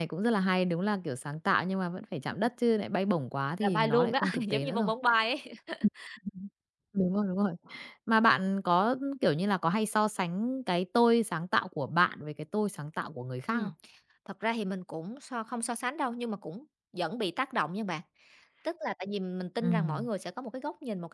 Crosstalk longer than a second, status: present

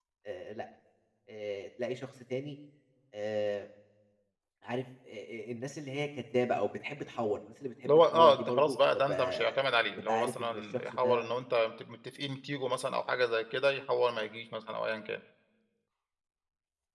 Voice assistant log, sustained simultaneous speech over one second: present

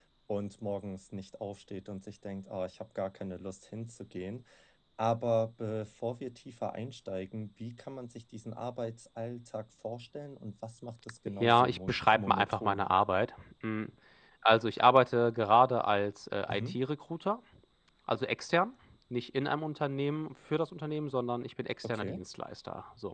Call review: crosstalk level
present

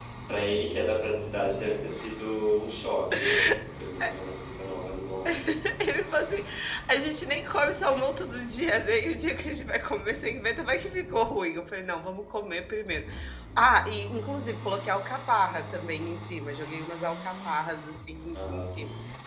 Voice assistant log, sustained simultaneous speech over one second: none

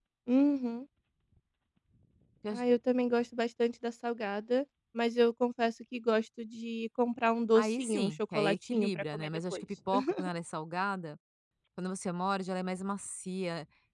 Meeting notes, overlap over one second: present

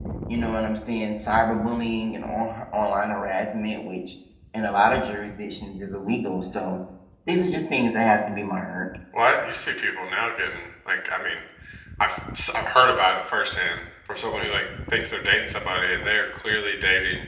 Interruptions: none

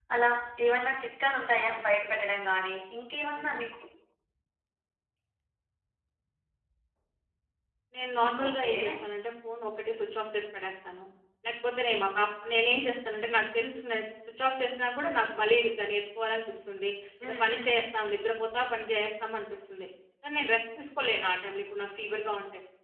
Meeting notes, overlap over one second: none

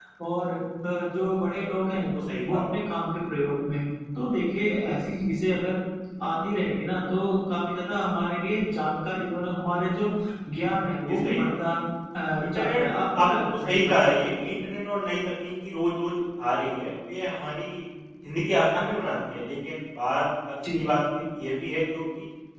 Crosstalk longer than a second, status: present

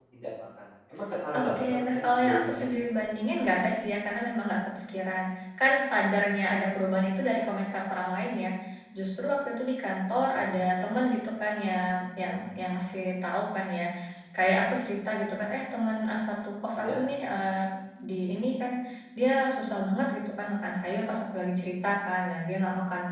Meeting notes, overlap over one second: present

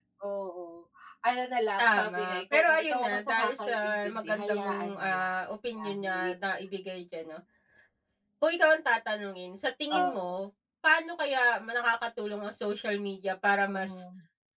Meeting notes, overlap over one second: present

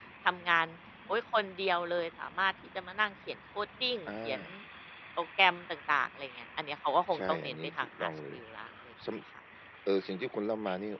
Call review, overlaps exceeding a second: present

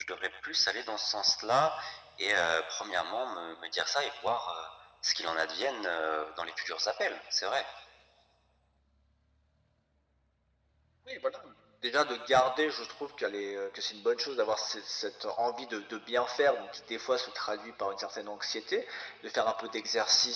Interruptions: none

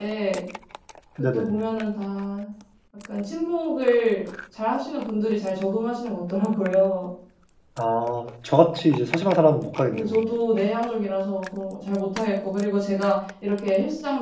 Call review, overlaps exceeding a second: none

